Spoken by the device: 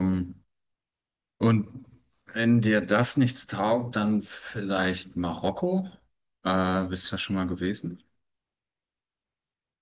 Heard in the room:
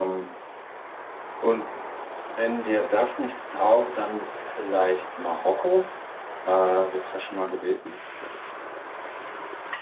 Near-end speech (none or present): none